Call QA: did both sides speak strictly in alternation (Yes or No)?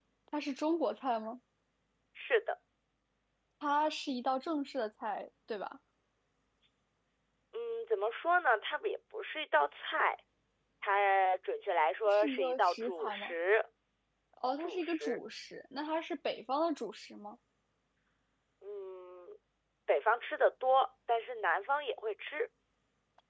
No